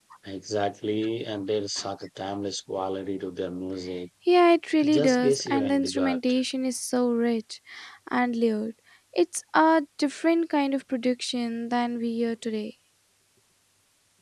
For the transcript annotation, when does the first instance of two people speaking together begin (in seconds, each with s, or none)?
4.8 s